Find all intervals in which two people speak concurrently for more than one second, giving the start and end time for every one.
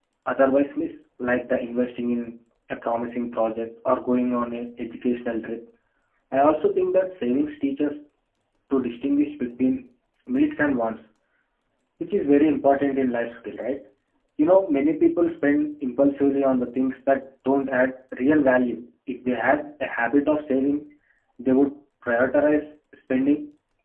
none

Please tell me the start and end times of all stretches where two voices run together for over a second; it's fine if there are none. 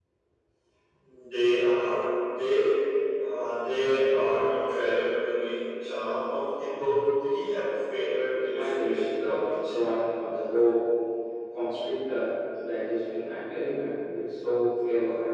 8.5-9.8

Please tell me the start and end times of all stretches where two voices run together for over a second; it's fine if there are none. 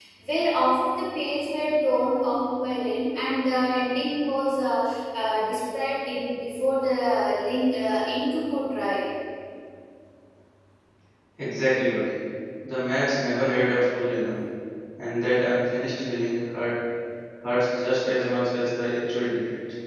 none

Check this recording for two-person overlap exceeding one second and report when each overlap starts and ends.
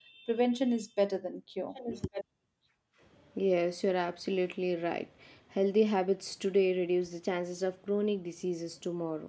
none

